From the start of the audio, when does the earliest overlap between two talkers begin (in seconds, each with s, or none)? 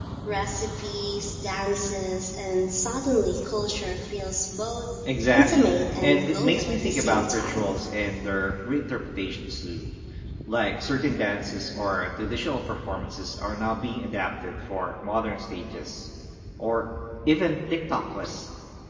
5.3 s